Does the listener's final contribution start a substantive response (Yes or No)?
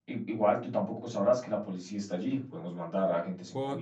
Yes